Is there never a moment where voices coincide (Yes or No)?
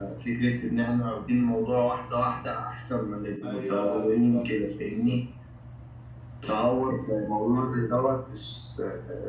No